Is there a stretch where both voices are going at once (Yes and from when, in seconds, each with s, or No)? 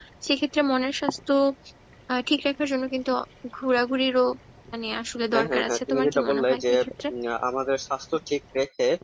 Yes, from 5.3 s